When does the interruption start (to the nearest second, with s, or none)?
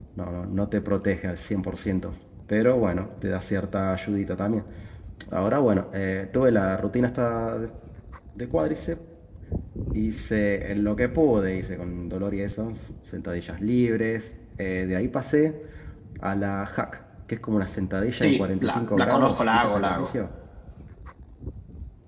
18 s